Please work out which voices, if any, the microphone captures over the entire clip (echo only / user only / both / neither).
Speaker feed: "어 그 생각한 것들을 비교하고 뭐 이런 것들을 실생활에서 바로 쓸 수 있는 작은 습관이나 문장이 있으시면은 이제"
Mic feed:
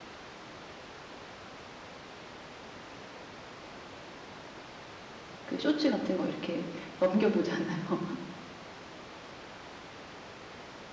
user only